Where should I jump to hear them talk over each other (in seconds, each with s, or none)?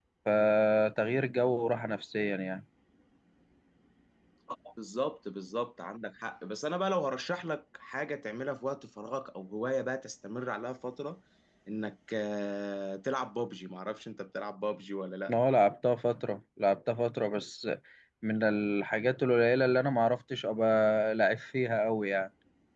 none